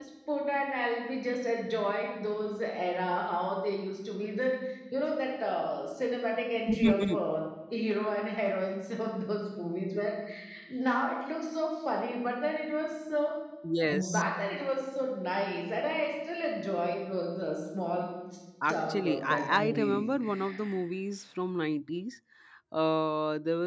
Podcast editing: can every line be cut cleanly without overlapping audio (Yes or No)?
No